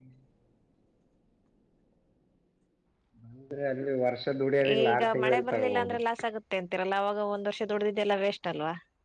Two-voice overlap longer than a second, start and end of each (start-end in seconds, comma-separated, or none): 4.8-6.0